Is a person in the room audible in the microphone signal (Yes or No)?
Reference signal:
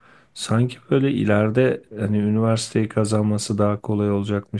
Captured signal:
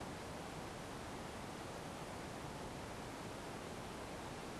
No